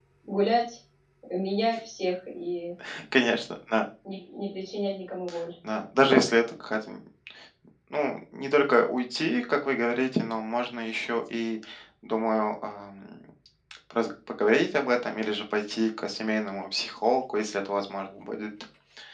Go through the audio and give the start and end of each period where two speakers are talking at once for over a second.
none

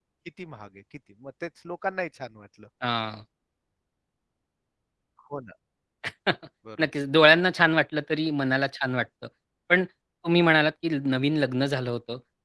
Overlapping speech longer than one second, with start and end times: none

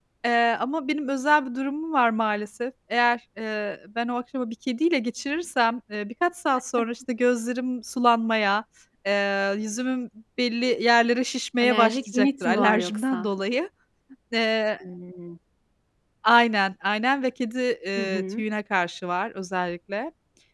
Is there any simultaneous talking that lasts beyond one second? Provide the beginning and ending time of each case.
11.6-13.2

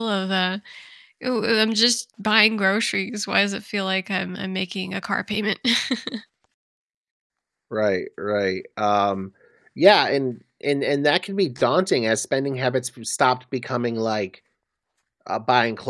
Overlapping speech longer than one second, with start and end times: none

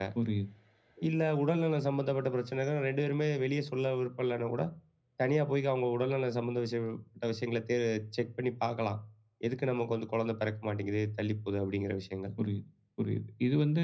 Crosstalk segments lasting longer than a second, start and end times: none

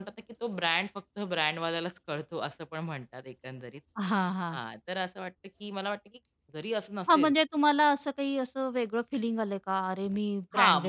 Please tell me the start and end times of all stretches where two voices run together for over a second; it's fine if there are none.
none

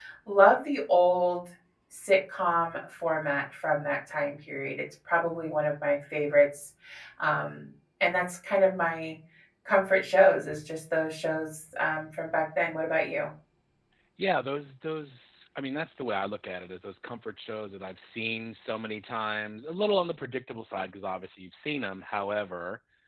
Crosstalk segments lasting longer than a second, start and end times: none

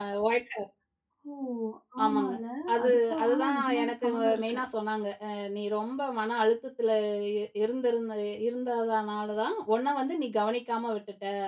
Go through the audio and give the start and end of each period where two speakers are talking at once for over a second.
2.8-4.6

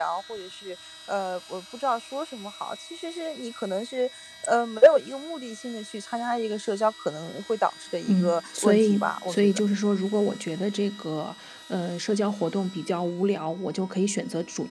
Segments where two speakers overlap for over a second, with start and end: 8.1-9.6

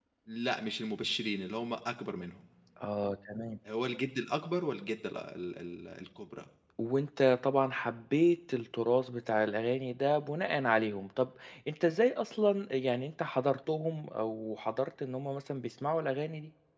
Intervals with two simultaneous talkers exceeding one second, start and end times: none

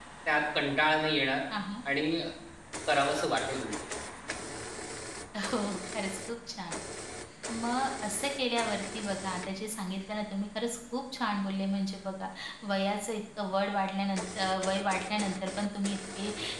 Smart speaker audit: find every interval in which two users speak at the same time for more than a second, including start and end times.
none

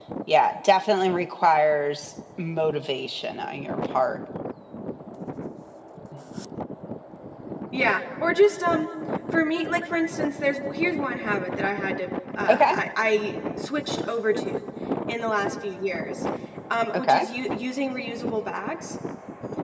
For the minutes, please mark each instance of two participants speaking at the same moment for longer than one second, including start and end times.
none

